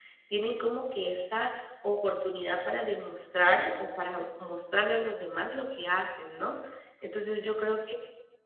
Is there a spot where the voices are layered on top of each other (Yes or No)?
No